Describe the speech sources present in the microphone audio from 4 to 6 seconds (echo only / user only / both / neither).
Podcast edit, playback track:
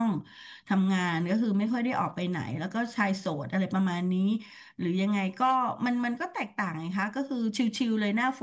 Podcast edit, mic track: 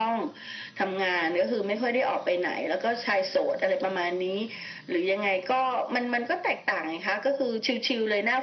echo only